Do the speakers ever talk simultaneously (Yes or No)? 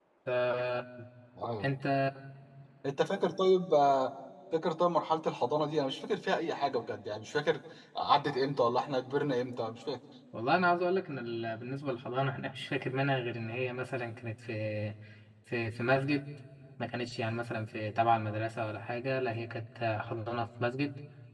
No